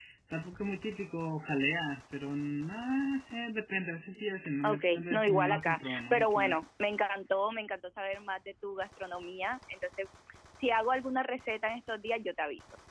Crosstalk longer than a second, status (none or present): present